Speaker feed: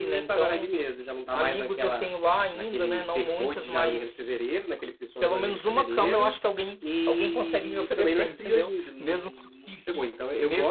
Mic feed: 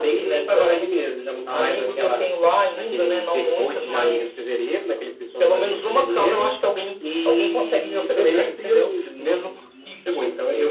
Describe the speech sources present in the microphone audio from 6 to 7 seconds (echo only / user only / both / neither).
echo only